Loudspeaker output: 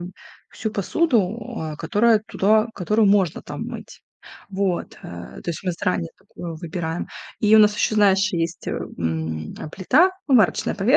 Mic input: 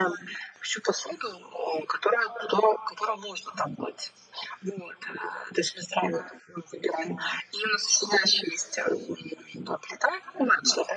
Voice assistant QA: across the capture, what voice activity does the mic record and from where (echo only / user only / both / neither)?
echo only